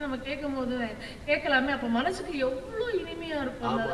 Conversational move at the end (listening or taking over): taking over